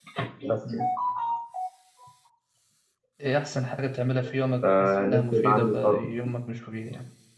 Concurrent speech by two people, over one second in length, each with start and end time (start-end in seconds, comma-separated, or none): 4.6-6.1